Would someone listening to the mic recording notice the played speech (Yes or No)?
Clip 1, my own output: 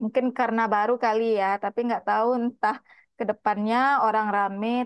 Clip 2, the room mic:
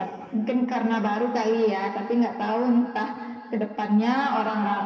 Yes